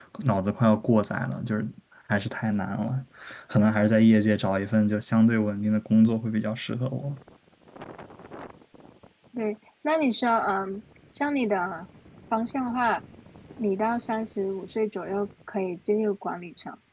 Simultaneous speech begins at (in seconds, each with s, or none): none